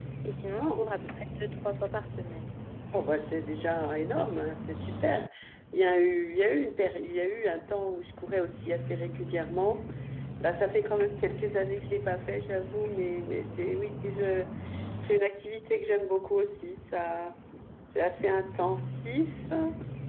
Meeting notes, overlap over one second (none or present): none